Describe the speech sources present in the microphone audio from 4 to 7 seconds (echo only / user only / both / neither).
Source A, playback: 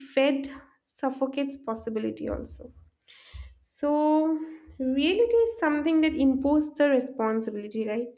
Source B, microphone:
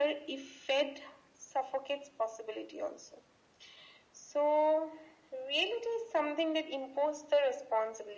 echo only